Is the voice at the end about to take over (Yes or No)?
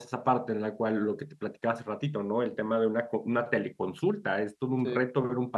No